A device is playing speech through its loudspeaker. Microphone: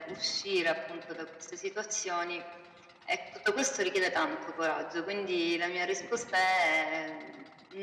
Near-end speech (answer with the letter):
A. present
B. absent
B